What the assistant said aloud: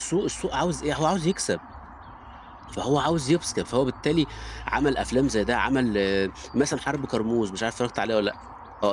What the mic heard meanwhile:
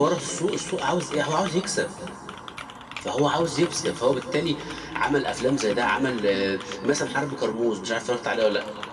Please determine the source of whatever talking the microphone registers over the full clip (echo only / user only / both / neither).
echo only